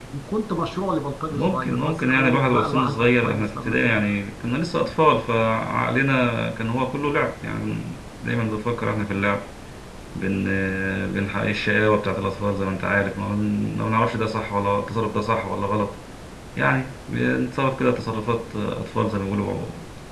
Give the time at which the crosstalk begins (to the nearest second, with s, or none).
1 s